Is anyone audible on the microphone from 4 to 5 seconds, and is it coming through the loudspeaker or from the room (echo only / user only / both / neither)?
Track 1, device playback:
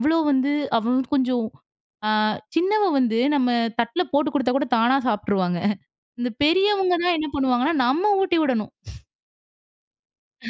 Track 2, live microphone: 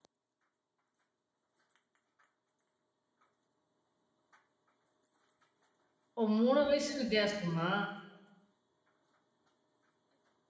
neither